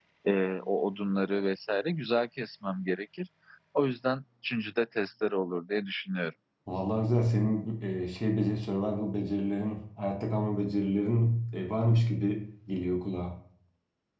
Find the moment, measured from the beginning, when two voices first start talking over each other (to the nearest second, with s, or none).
none